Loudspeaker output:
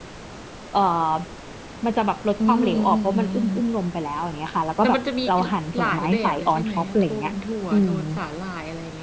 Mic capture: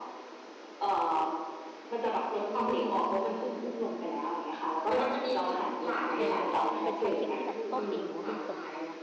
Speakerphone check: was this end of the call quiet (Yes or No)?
No